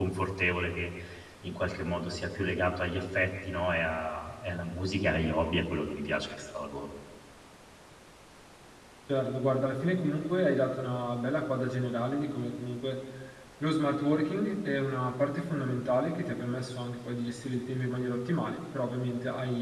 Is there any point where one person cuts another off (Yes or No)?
No